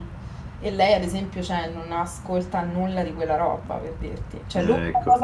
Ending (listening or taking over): listening